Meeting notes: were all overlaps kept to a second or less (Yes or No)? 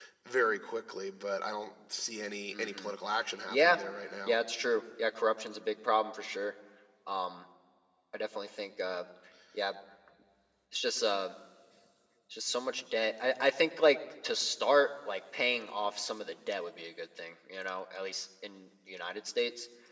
Yes